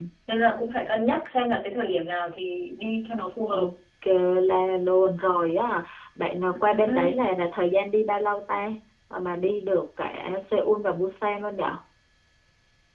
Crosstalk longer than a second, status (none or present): none